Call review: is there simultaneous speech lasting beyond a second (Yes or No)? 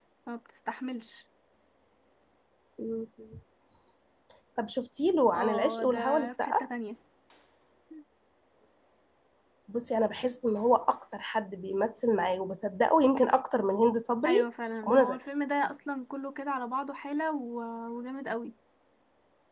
Yes